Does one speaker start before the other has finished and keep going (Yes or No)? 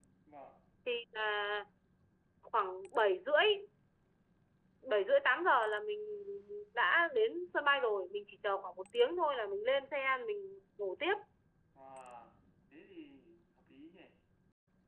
No